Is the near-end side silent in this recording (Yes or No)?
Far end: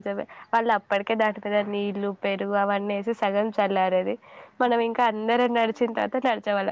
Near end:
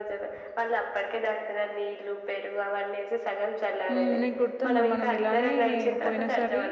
No